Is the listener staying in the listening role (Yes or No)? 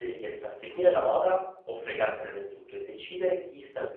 Yes